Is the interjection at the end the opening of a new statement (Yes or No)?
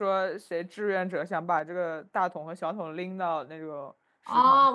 Yes